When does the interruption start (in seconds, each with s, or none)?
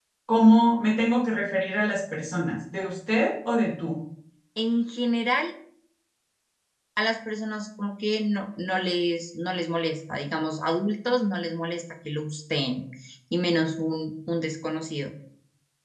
none